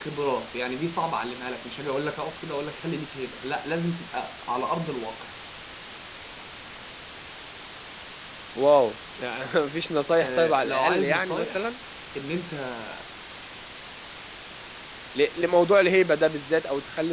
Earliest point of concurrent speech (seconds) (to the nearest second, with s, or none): 10 s